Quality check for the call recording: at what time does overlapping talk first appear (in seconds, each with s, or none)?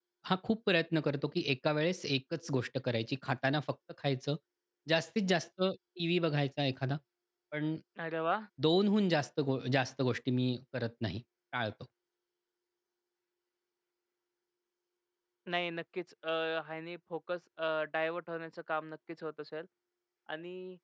none